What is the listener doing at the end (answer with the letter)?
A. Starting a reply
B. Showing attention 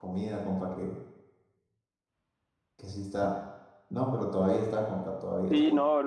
A